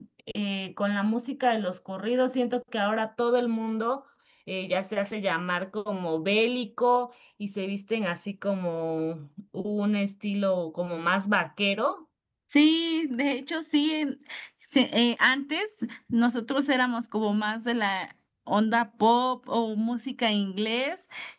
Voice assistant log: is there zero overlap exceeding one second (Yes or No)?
Yes